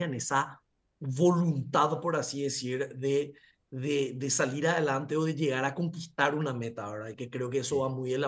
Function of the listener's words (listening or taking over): listening